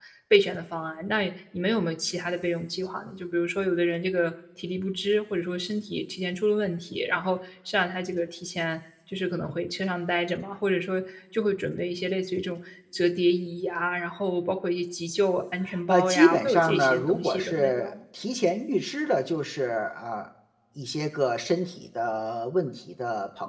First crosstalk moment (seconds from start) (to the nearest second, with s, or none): 16 s